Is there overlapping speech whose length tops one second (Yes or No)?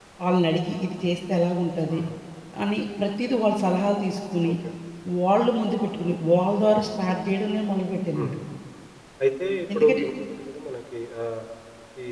No